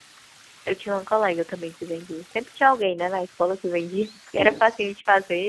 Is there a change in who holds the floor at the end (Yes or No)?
No